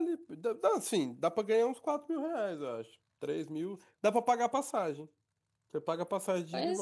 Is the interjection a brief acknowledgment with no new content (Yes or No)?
Yes